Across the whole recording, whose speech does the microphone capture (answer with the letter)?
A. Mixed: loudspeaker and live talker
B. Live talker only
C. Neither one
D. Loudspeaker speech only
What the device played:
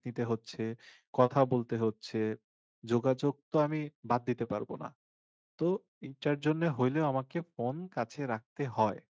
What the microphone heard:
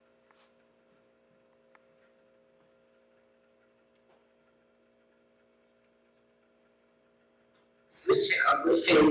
B